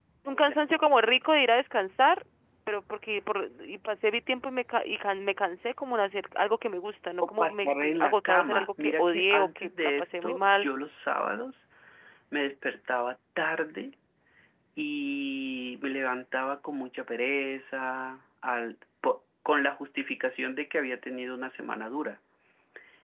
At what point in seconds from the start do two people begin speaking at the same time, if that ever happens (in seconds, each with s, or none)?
7.2 s